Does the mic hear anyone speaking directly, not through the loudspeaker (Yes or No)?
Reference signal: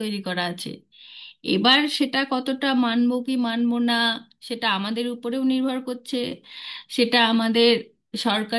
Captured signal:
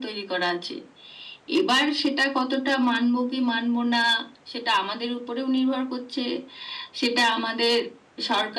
No